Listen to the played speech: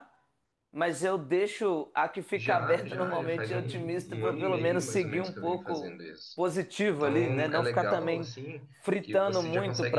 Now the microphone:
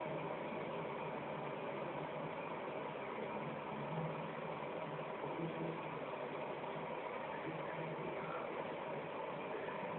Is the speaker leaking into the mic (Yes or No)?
No